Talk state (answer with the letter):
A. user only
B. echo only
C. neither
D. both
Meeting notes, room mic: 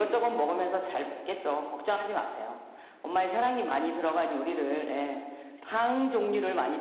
B